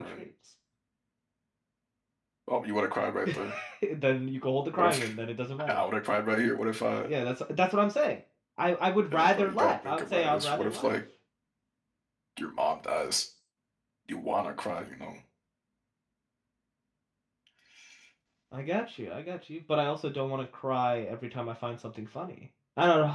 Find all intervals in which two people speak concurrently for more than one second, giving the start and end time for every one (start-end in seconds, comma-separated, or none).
9.1-11.0